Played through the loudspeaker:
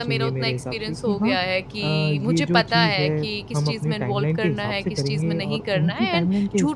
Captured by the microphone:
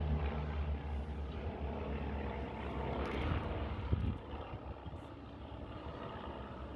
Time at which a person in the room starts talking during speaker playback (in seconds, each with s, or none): none